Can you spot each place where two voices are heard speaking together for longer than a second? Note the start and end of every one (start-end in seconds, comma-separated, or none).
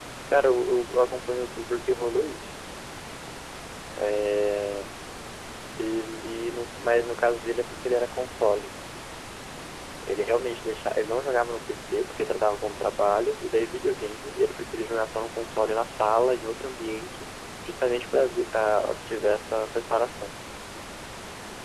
none